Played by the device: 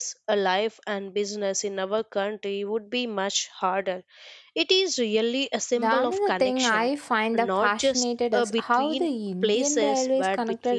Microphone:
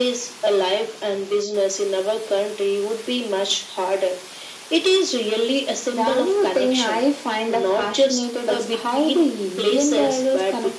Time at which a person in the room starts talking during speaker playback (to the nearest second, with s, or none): none